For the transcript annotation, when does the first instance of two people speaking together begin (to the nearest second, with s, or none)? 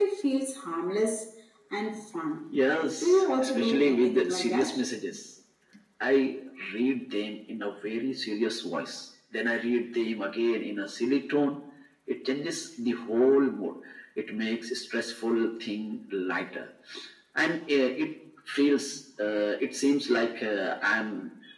3 s